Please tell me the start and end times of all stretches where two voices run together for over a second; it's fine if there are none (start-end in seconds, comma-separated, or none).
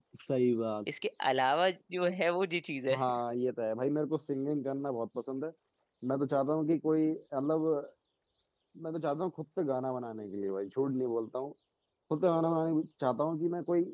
none